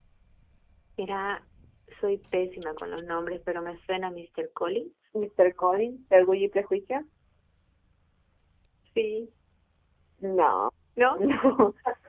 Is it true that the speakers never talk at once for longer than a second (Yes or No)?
Yes